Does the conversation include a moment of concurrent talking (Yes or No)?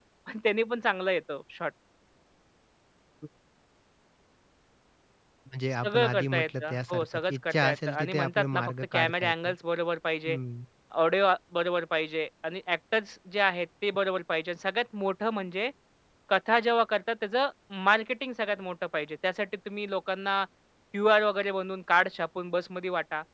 Yes